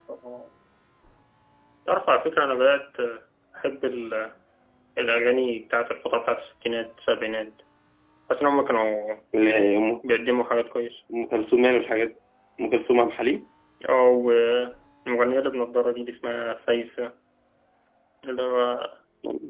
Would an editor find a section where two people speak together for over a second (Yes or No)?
No